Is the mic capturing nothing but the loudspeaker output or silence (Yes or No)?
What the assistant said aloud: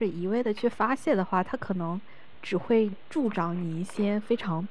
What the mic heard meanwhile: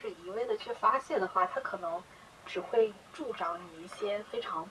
Yes